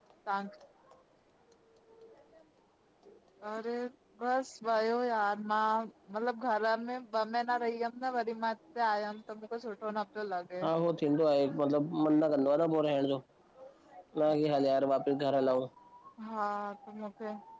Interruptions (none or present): none